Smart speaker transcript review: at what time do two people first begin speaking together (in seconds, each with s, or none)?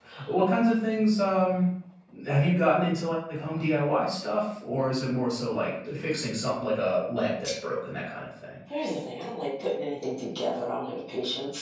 none